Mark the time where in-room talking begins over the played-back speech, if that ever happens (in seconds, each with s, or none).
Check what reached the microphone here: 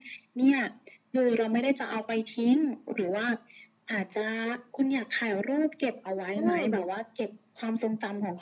6.4 s